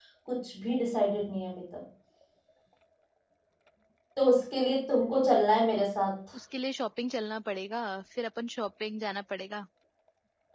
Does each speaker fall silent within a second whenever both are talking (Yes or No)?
Yes